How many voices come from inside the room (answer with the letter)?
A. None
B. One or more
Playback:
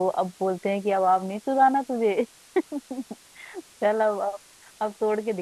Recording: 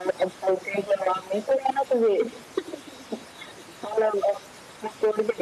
A